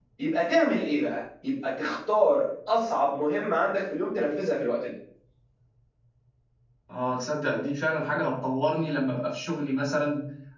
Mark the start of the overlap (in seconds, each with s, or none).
none